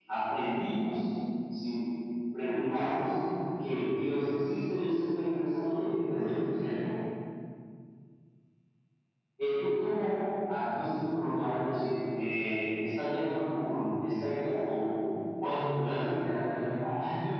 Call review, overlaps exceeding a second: present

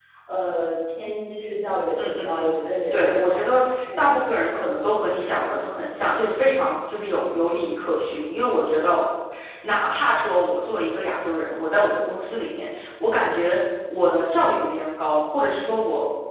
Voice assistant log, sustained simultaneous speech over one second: present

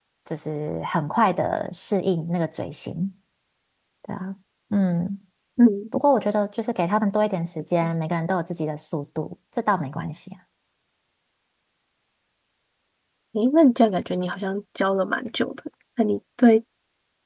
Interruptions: none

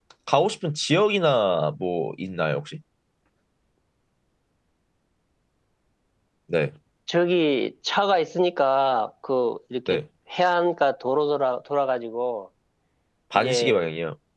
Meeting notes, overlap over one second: none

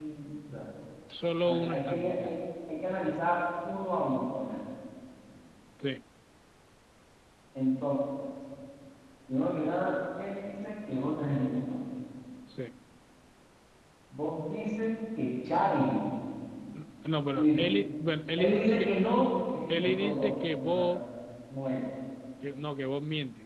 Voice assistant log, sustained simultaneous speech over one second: present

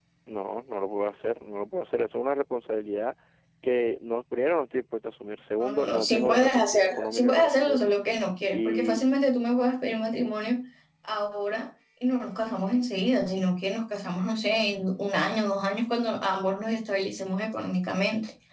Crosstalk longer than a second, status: present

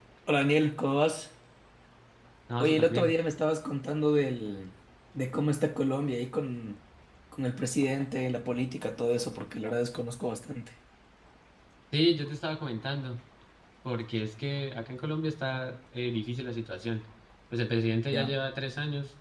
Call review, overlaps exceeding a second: none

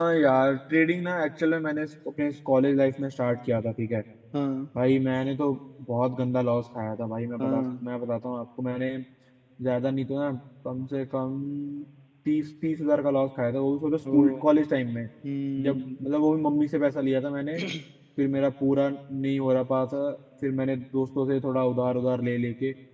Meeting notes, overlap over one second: none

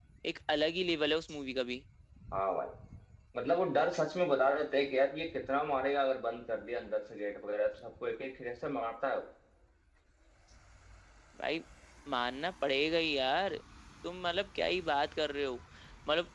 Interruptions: none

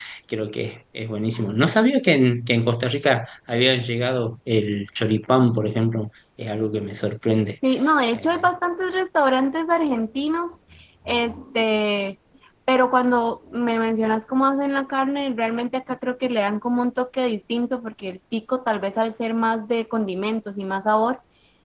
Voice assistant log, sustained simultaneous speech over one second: none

